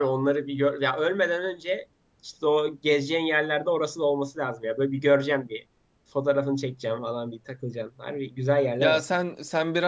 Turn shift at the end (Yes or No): Yes